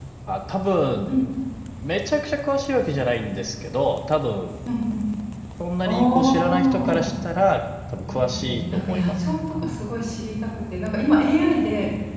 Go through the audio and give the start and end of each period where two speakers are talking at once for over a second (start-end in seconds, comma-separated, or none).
5.9-7.1, 8.1-9.4